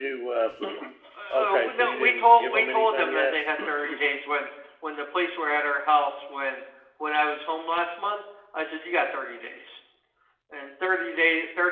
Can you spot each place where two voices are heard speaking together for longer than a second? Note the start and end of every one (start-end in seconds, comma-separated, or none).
1.4-3.3